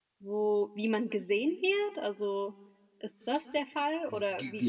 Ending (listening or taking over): taking over